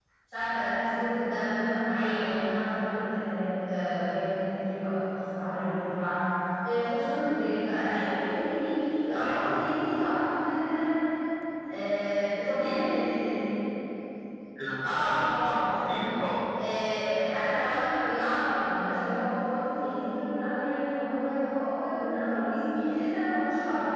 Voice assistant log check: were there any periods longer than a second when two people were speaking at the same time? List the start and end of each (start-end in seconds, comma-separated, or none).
14.8-16.1